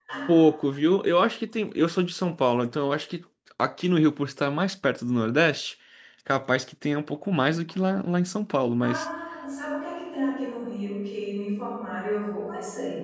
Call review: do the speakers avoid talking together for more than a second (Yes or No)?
Yes